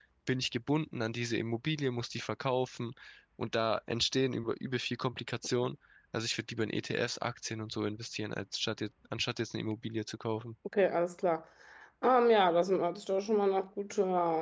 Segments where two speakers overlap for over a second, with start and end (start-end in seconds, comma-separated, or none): none